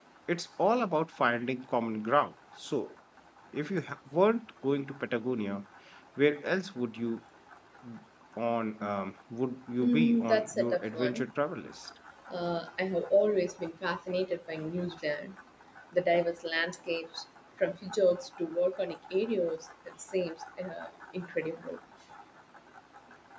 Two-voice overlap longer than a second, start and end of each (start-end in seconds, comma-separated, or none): 9.8-11.3